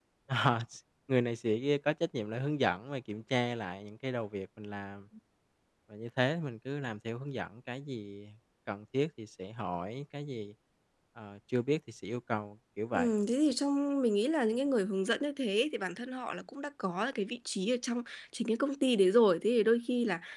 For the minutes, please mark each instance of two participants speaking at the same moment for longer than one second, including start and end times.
none

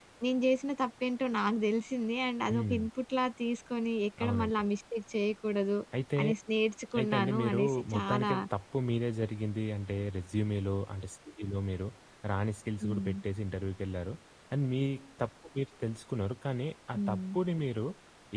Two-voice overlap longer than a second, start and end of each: 7.0-8.3

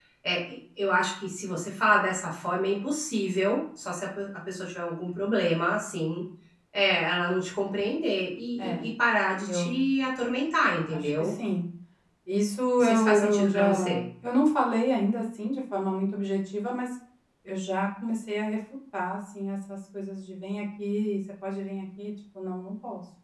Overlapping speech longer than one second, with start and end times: 12.8-14.0

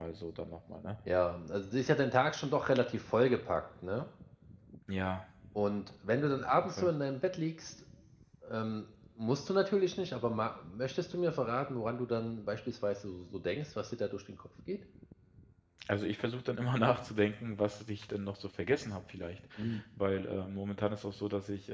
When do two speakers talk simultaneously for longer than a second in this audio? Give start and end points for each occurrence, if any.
none

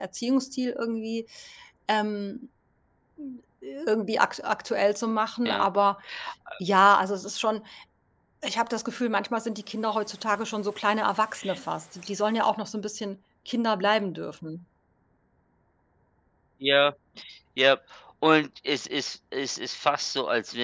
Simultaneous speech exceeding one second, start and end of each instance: none

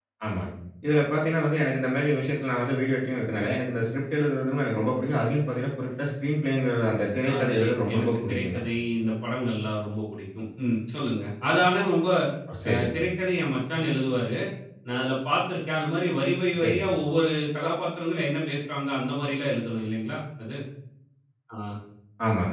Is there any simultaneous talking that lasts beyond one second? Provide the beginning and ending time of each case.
7.3-8.6

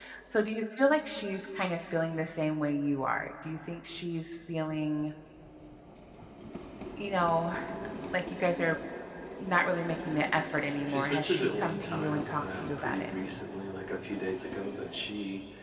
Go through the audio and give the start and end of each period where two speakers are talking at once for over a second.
10.9-13.1

